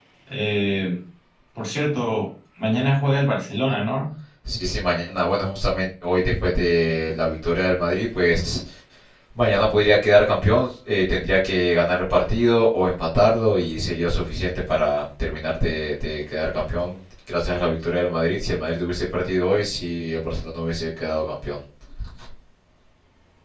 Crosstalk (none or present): none